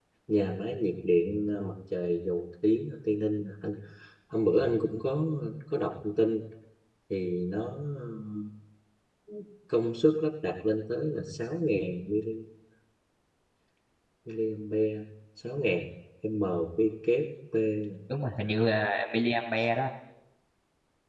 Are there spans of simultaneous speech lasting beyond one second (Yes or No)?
No